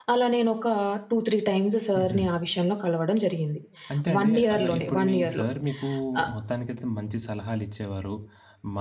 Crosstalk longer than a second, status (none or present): present